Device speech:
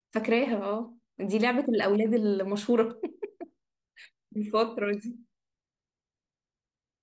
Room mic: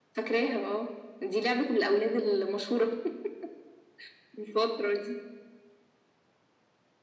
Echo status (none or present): present